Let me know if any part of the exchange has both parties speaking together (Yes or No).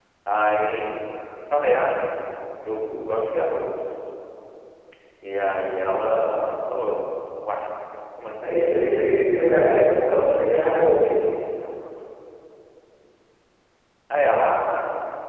Yes